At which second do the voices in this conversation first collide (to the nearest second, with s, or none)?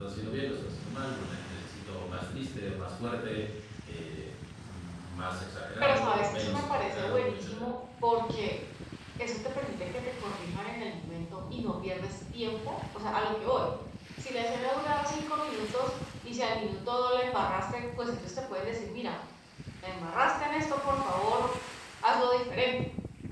6 s